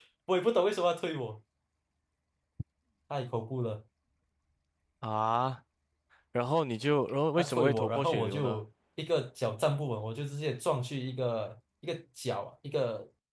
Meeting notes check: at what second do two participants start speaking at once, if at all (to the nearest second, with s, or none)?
7 s